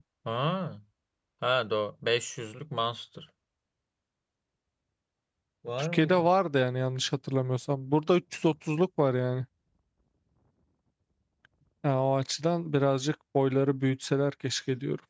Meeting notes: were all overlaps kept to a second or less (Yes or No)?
Yes